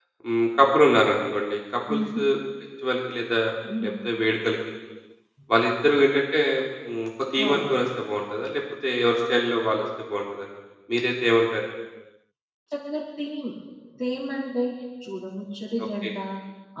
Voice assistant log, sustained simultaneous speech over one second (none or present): none